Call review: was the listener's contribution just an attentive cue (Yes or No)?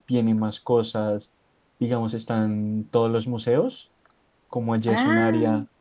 Yes